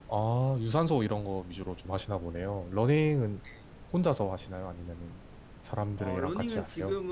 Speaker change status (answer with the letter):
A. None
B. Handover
B